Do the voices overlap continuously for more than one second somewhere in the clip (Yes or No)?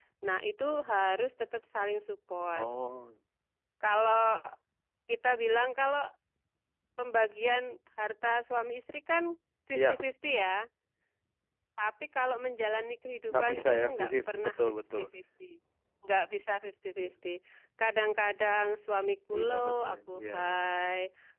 Yes